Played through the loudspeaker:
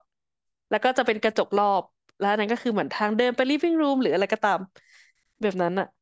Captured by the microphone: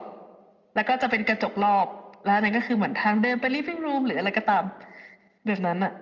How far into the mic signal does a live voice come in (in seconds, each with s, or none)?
none